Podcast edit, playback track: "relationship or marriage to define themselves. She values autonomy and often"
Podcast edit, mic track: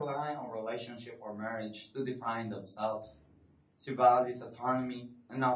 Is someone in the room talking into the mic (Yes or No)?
No